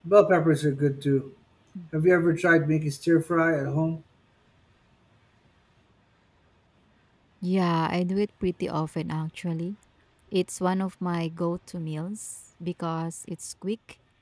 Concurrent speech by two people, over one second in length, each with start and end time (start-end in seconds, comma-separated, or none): none